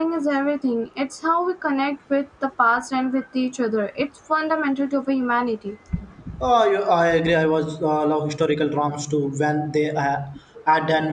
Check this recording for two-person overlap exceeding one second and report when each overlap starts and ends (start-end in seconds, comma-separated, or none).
none